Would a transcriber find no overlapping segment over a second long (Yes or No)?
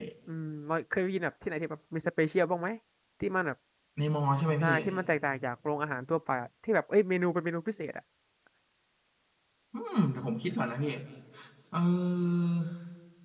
Yes